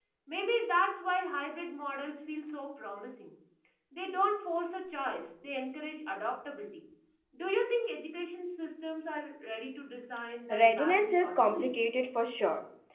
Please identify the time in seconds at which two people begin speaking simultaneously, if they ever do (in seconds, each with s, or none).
10.5 s